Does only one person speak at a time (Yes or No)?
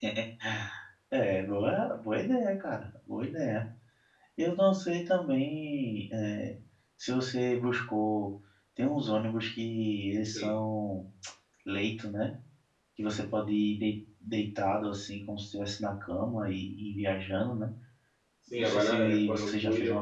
No